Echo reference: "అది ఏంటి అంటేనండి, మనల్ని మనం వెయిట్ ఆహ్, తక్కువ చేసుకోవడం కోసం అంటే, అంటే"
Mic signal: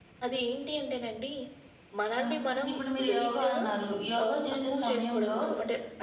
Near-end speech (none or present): present